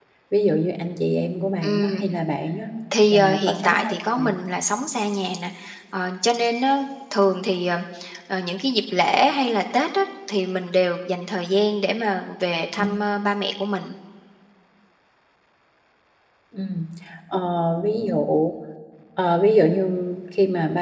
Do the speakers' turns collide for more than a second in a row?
Yes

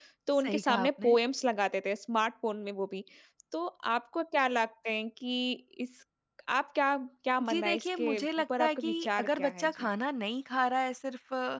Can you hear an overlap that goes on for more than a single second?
Yes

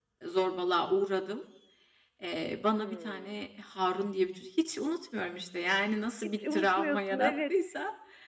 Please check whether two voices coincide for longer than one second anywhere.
Yes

